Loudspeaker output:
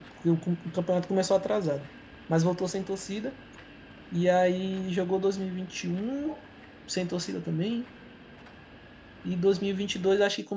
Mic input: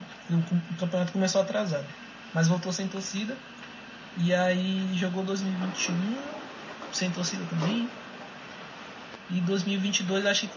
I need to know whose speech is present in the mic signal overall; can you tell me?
echo only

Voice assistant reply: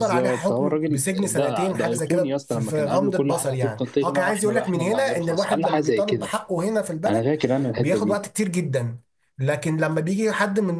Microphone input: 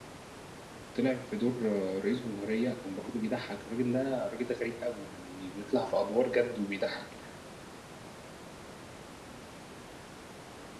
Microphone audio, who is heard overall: user only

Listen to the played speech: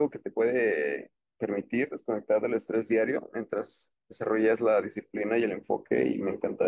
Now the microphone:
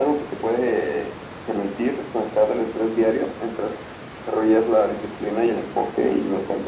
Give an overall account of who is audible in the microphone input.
echo only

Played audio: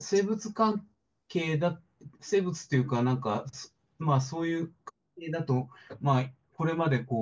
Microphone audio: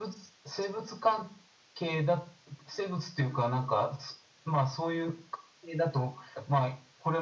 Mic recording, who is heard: echo only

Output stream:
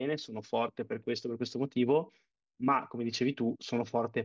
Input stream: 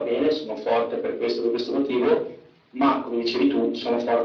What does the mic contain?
echo only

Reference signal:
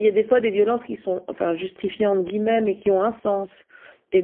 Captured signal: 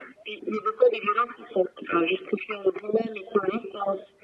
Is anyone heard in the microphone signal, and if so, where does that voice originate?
echo only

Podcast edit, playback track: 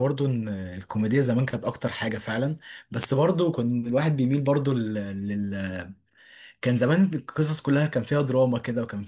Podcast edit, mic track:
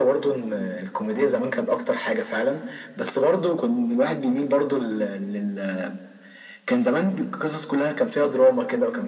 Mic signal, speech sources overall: echo only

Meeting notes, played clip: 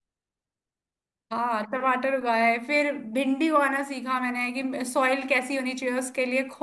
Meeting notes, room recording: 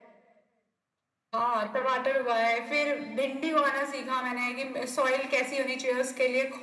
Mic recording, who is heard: echo only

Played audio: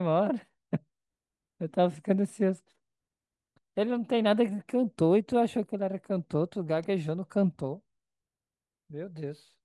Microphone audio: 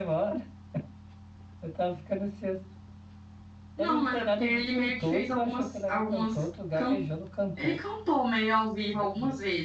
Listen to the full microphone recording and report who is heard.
both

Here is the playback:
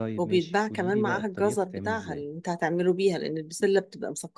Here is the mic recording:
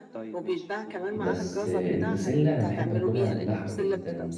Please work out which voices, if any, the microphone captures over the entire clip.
both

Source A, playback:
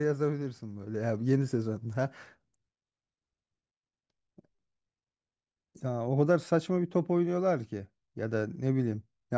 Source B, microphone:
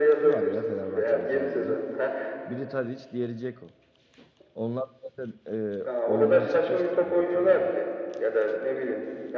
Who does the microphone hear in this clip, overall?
both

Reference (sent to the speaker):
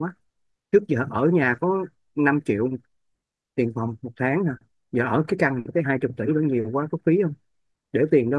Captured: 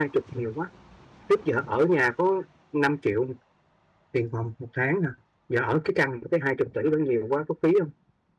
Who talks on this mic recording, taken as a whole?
echo only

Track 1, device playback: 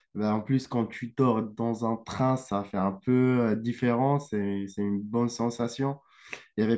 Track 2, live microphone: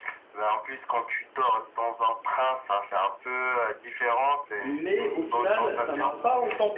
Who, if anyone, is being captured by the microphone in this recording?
both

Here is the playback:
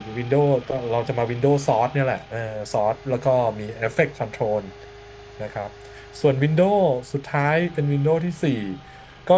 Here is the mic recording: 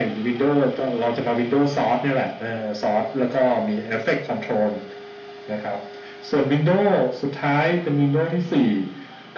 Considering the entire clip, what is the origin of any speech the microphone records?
echo only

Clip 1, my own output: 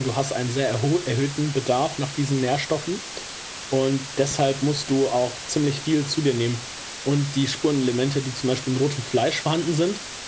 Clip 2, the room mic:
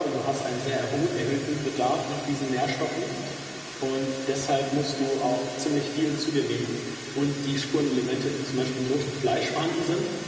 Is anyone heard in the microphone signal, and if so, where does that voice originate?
echo only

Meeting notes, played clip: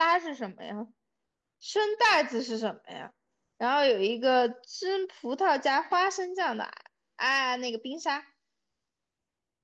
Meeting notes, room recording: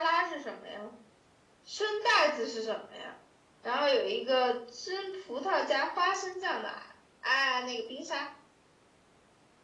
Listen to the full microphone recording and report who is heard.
echo only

